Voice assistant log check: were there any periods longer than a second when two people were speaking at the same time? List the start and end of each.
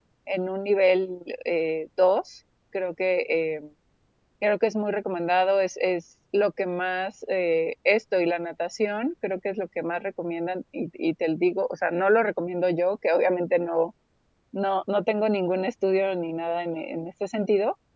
none

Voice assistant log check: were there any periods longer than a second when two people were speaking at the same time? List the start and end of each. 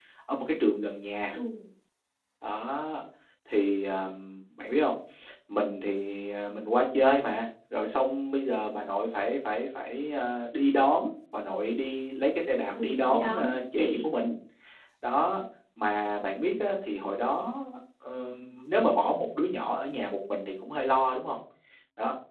12.8-14.1

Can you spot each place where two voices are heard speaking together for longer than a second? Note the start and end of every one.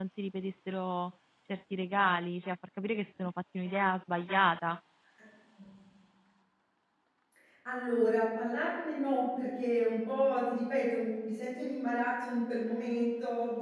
none

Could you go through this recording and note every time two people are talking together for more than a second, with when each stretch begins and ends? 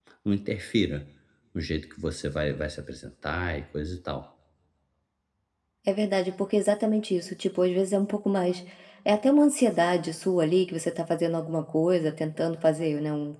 none

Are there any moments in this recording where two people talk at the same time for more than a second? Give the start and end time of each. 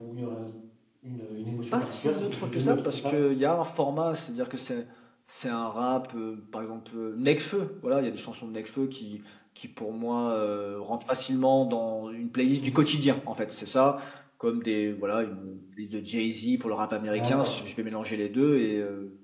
1.7-3.2

